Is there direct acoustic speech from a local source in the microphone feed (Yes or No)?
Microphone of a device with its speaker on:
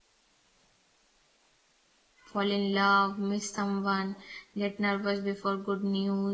Yes